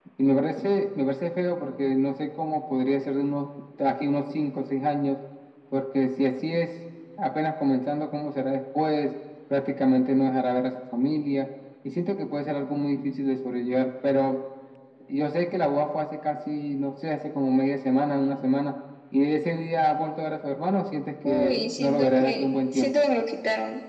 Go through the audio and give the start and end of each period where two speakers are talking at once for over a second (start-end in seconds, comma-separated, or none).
21.2-23.0